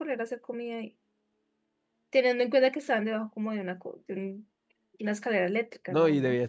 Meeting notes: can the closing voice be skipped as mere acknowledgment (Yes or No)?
No